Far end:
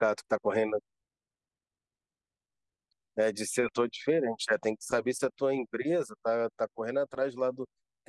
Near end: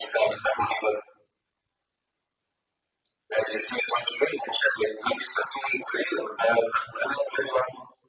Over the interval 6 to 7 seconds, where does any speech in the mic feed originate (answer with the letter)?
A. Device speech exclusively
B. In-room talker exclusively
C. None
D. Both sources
A